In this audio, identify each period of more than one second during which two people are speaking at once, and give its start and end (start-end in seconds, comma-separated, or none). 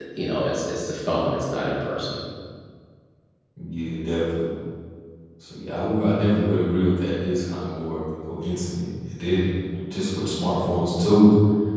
none